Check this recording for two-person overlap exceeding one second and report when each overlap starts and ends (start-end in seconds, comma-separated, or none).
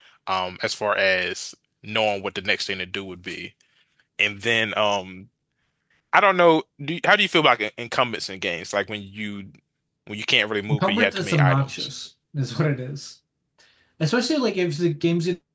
10.7-11.9